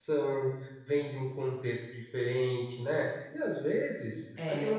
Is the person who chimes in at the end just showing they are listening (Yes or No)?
Yes